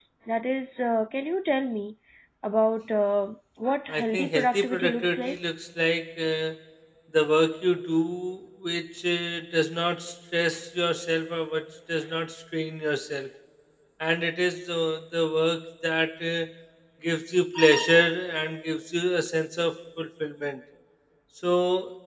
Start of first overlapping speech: 3.9 s

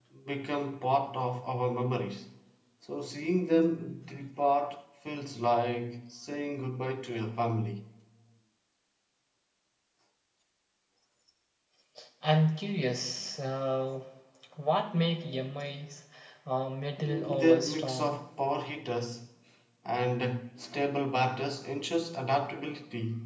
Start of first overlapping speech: 17.0 s

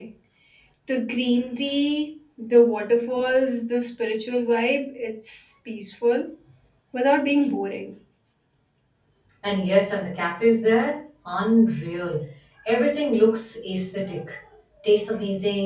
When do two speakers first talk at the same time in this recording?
none

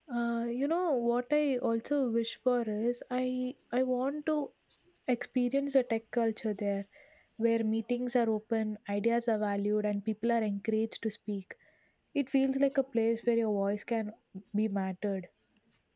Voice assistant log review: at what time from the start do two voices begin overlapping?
none

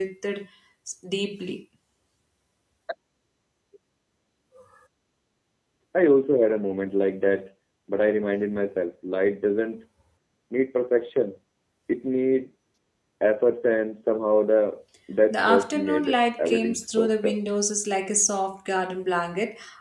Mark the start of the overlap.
15.3 s

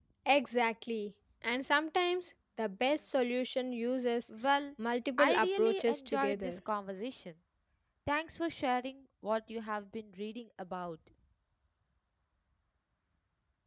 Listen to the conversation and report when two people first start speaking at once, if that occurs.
5.2 s

